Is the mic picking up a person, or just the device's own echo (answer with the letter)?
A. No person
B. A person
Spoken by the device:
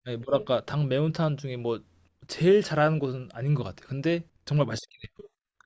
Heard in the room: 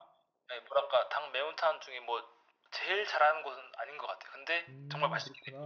B